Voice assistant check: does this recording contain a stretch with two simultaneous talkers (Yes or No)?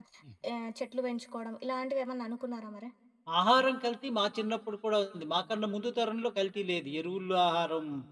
No